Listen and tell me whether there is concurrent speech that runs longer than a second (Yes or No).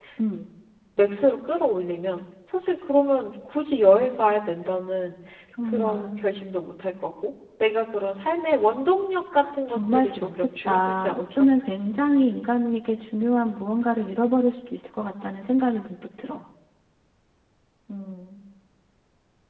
Yes